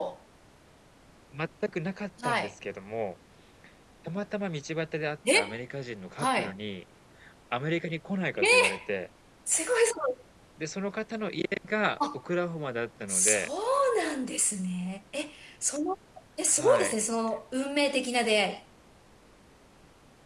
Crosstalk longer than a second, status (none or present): none